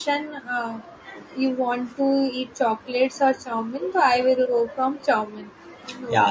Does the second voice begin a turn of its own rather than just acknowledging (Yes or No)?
Yes